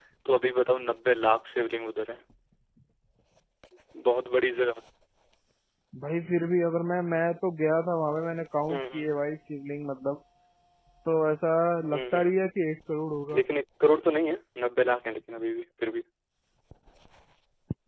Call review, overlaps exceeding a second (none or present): none